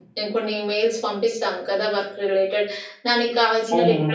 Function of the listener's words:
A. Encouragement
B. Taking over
A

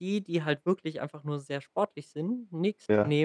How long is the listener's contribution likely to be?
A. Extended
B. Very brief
B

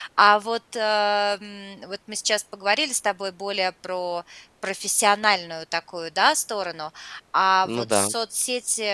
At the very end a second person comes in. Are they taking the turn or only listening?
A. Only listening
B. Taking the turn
A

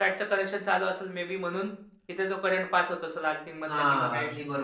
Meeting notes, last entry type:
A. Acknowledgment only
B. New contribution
B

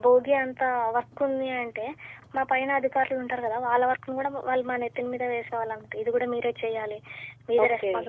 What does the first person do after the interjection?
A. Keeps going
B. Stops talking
A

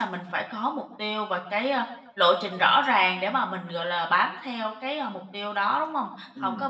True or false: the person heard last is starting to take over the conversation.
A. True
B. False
B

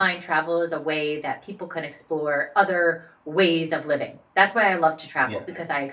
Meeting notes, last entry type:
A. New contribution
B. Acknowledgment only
B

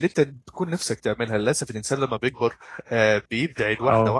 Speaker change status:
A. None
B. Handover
A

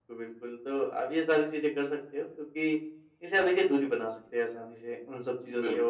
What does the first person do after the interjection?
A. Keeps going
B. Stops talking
A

